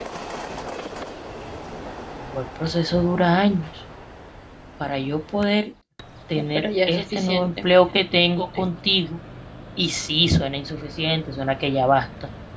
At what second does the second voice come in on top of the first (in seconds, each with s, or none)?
6.4 s